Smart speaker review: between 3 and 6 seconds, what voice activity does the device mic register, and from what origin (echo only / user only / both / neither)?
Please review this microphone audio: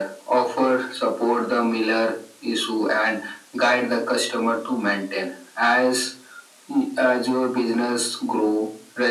echo only